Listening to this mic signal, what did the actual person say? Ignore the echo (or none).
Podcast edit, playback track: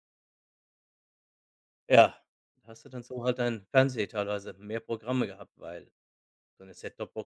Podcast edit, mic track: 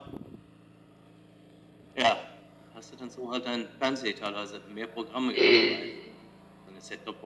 äh